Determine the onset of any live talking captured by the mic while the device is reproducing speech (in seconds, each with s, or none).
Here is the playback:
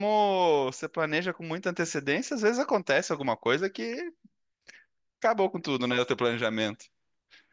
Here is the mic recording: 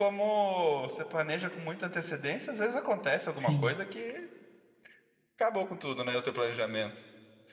3.3 s